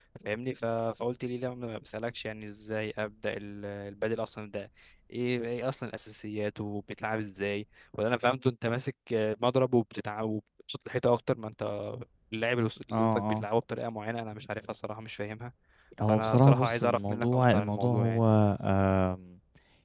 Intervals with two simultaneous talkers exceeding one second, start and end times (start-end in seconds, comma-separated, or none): 16.1-18.2